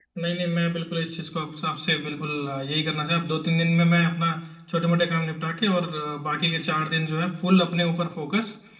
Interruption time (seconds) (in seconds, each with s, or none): none